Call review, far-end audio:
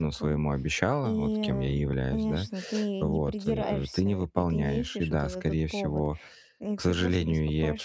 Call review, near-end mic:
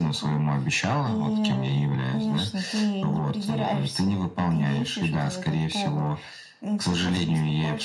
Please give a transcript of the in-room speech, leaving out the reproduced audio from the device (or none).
none